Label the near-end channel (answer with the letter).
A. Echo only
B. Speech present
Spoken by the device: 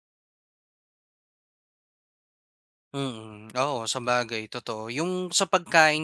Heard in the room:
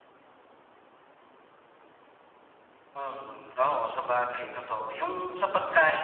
A